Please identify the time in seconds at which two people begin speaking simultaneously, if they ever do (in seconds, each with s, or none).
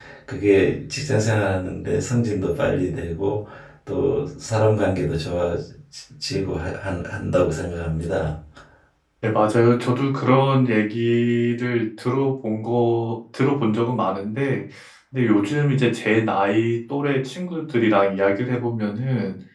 none